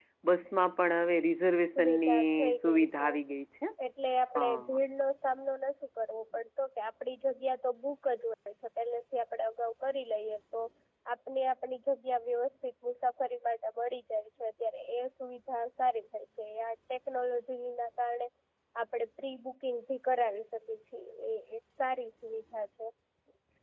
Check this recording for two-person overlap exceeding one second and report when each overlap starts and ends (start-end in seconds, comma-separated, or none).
1.8-3.1